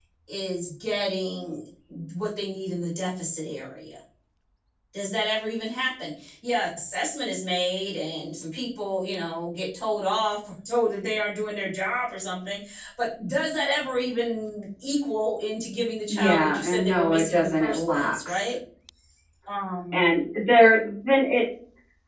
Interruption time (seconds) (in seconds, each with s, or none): 16.1 s